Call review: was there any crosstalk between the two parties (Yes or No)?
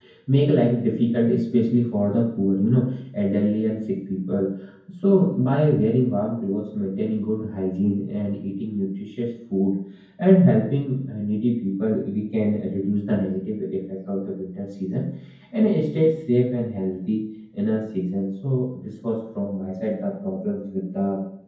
No